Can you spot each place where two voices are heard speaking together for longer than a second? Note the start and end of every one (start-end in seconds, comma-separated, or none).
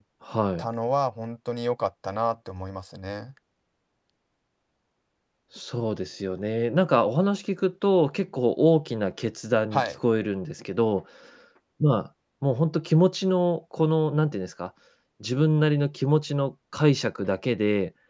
none